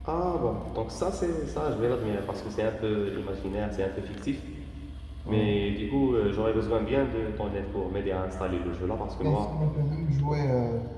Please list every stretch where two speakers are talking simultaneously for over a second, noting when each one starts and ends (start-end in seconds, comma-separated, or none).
none